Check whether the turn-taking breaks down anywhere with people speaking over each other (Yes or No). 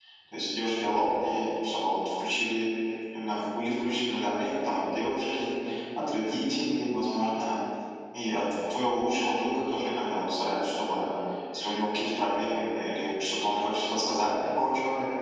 No